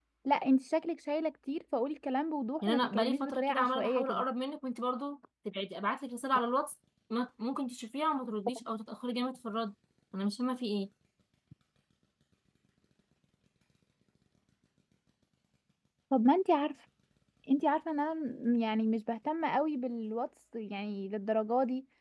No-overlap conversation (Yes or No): No